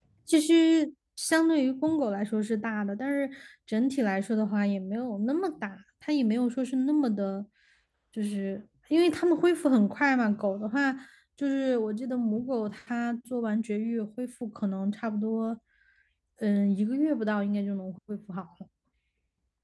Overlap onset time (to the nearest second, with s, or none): none